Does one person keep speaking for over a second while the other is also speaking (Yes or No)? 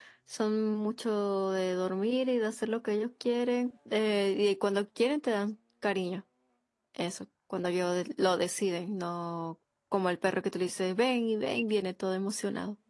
No